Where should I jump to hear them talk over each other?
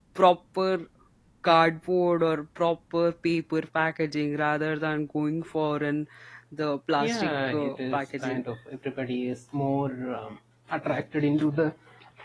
7 s

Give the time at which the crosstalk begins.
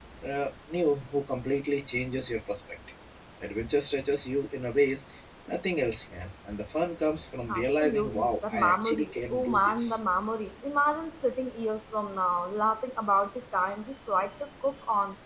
7 s

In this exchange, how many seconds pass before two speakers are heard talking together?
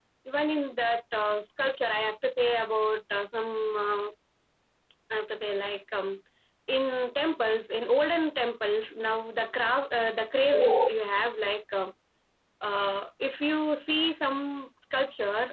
none

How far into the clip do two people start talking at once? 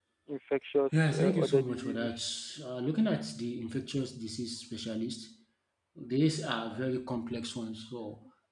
1 s

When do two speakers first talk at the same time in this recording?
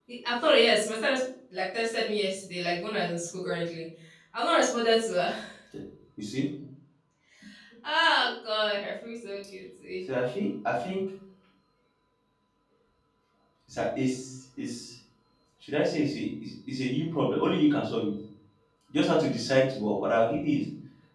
none

